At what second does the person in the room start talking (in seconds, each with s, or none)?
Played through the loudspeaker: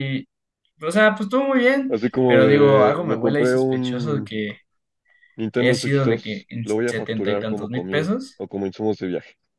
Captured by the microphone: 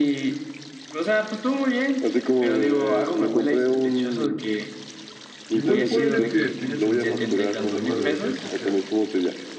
5.5 s